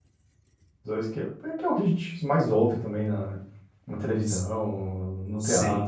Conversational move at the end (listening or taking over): listening